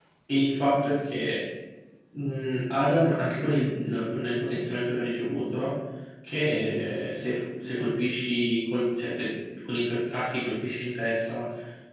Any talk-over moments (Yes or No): No